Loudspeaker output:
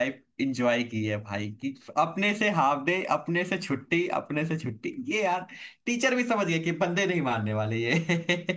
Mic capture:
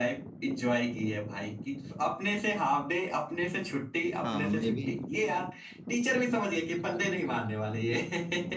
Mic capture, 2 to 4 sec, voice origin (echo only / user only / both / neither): echo only